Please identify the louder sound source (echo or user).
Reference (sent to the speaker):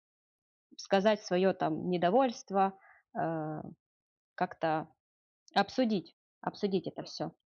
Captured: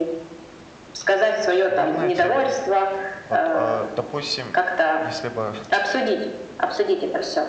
echo